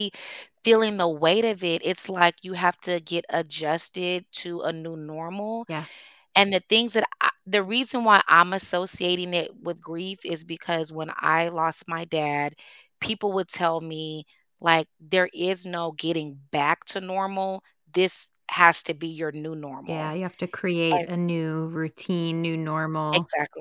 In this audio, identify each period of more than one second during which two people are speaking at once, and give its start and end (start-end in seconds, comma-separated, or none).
none